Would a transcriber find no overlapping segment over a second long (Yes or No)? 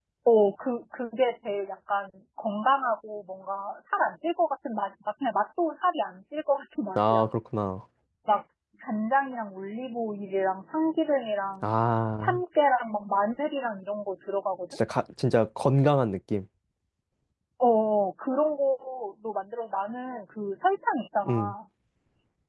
Yes